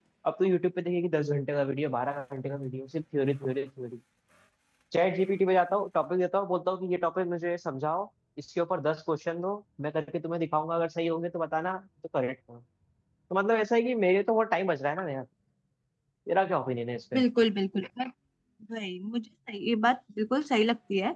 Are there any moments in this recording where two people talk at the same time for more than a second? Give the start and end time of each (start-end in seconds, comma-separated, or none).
none